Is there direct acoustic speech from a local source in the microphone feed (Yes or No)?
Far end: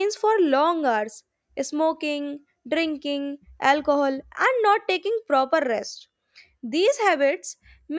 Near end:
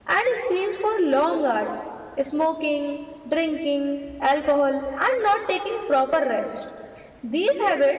No